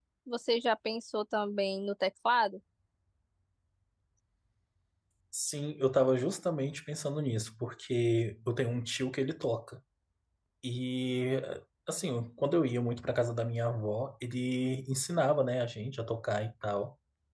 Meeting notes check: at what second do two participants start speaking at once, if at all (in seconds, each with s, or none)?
none